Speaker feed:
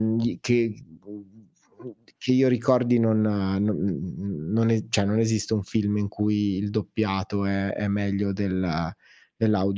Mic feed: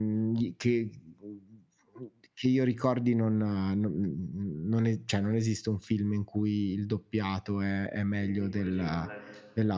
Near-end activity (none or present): present